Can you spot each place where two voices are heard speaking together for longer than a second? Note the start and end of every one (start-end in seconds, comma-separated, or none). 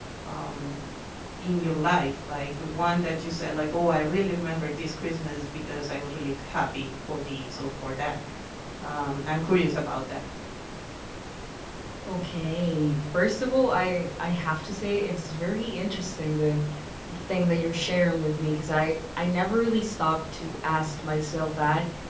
none